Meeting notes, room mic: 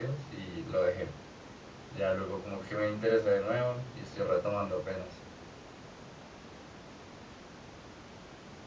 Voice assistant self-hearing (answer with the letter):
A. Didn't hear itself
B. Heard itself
A